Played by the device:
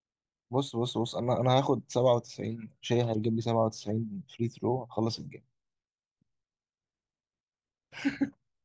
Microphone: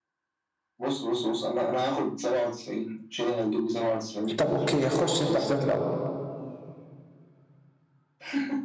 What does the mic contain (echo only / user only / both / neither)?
both